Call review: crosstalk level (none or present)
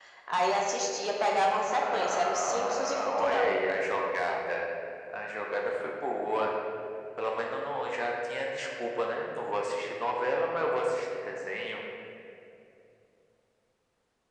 present